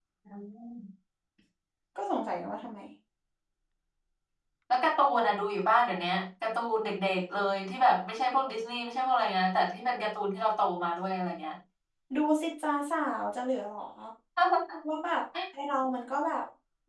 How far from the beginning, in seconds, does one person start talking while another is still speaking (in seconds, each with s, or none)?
none